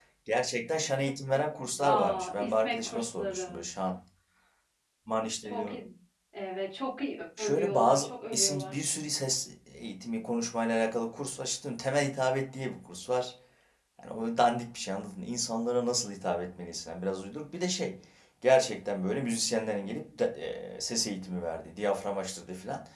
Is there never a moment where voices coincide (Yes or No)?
No